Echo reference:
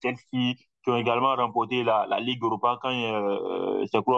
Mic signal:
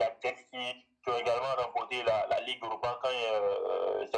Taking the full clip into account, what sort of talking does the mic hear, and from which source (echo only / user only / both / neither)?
echo only